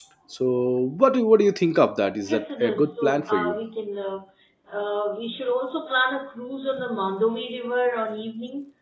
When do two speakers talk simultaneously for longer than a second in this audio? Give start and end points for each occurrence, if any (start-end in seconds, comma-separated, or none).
2.3-3.6